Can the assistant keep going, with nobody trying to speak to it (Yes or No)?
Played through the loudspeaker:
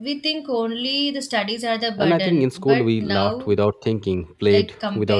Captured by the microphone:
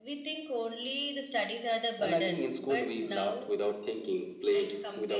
Yes